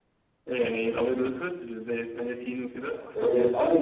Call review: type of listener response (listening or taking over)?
taking over